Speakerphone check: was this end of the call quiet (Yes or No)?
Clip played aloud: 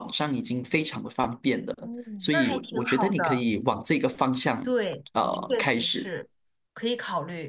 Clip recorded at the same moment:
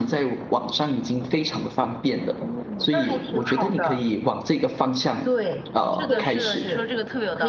No